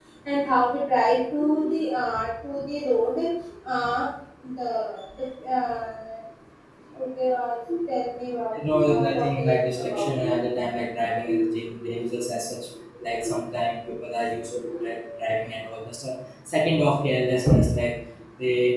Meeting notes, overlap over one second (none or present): present